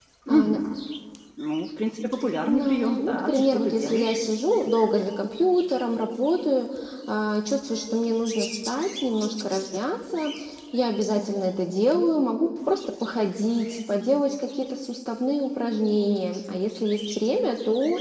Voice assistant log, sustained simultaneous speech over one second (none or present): present